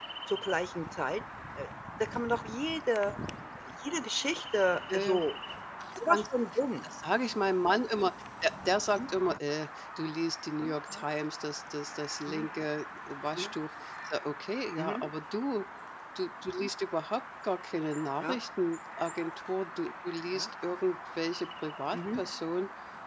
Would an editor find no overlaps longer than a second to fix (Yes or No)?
Yes